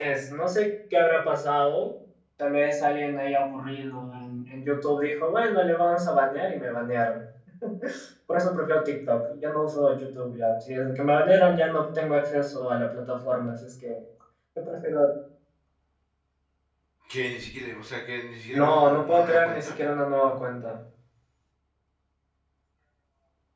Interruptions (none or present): present